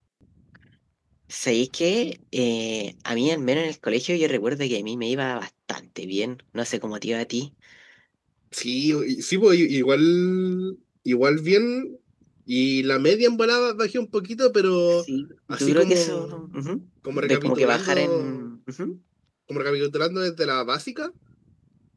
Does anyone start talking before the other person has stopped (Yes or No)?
Yes